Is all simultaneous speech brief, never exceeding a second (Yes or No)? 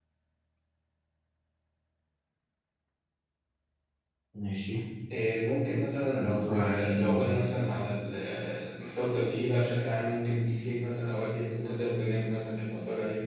No